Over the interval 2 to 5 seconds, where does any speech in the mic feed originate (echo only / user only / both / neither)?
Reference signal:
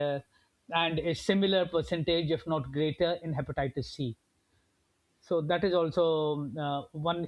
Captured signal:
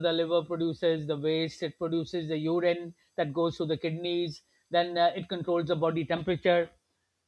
user only